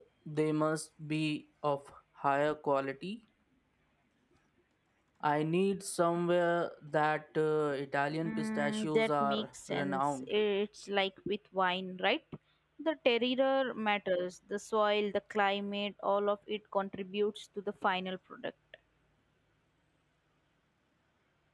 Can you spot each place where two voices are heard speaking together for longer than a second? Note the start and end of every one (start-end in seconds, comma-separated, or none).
8.2-10.3